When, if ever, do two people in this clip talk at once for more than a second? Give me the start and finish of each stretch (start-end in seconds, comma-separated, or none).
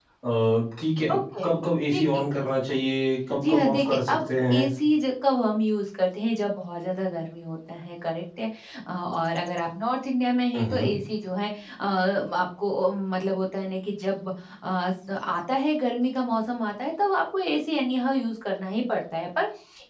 3.4-4.7